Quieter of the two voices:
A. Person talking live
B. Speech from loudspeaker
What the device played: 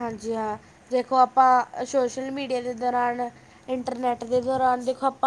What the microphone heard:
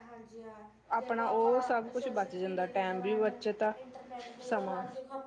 B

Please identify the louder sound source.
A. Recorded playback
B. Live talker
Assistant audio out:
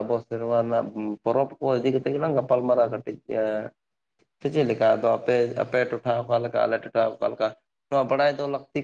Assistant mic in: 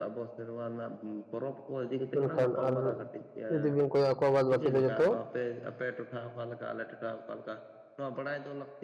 B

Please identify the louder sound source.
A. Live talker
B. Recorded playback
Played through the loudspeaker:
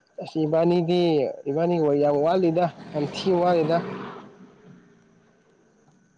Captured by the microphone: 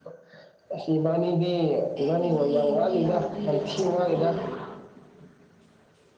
B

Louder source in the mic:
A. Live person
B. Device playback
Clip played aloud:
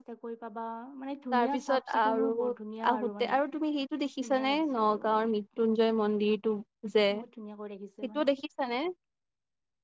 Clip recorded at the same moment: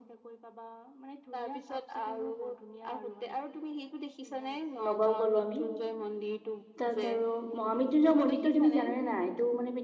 A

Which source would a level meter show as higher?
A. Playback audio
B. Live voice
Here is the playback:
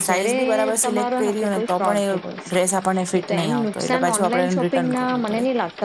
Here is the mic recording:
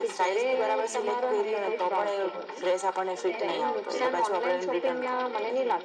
A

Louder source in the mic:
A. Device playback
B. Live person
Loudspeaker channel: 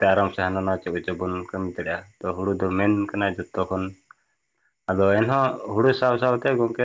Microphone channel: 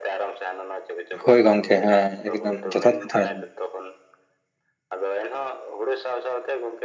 B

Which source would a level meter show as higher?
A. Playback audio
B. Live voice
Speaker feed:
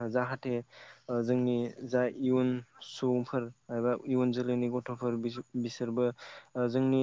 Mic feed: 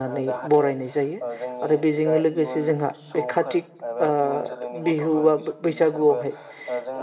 B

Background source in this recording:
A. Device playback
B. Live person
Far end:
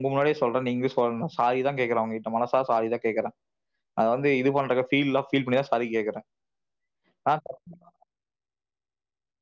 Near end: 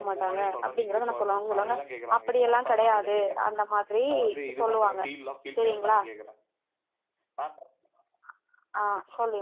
A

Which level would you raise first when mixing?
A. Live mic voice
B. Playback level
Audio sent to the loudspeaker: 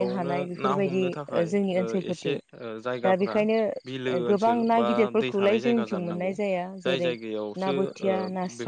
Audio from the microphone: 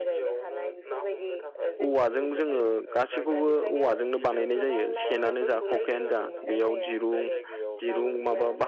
B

